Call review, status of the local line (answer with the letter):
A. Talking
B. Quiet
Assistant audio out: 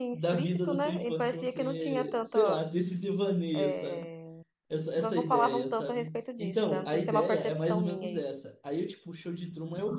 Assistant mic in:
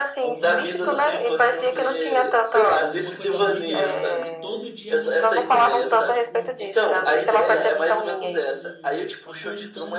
A